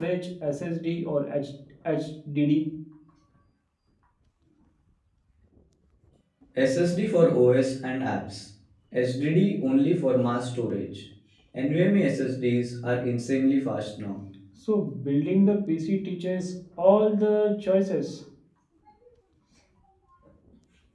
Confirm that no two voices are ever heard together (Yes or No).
Yes